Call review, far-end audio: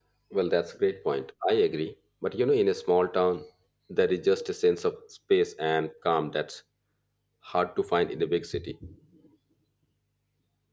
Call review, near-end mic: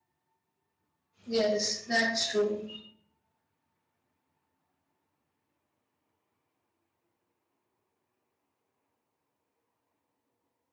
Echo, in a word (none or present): none